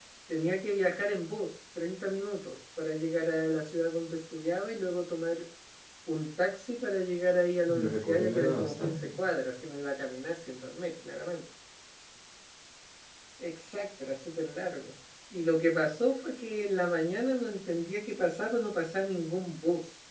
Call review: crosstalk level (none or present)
present